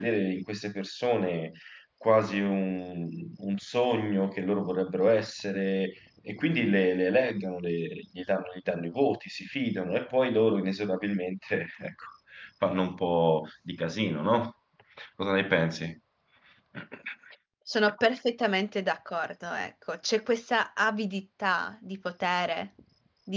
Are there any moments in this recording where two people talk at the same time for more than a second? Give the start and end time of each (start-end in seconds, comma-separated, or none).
none